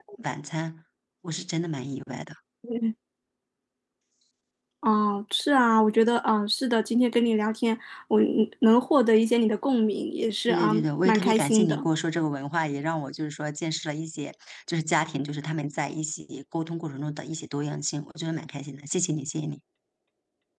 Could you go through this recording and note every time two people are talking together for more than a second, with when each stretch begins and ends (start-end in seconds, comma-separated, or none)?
10.5-11.9